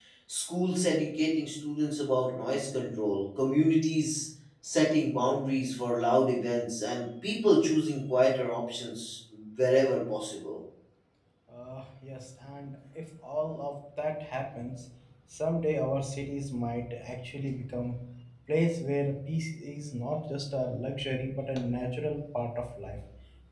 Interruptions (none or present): none